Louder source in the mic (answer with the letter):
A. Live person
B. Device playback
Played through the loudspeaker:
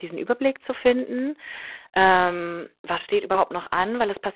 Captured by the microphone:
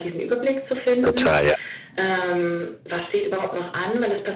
A